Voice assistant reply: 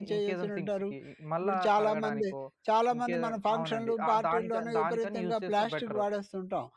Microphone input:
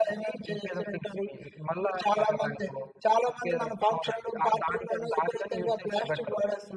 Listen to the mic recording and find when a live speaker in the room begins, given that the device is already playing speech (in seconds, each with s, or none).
none